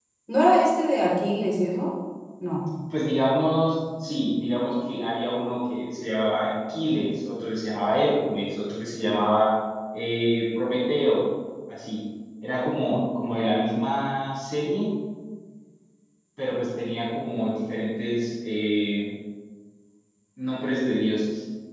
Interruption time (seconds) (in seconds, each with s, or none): none